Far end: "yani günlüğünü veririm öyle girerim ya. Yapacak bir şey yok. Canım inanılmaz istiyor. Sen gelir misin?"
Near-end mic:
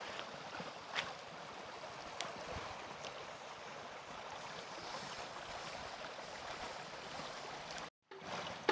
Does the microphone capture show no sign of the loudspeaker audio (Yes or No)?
Yes